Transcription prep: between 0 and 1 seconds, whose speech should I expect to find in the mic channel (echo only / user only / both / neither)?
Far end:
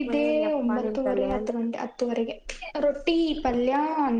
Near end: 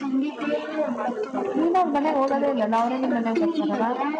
echo only